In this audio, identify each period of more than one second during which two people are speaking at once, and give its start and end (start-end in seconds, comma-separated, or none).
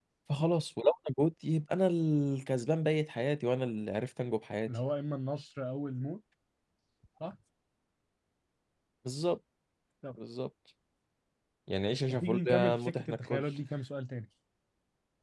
12.1-13.4